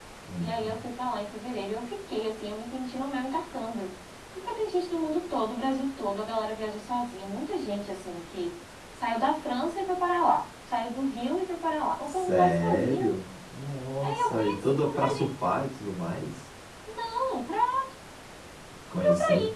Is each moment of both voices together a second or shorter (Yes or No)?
No